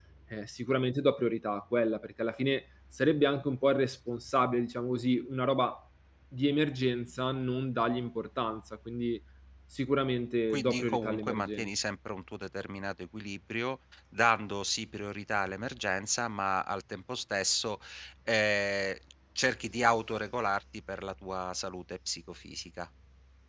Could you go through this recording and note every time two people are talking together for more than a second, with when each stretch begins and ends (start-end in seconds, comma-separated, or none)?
10.5-11.7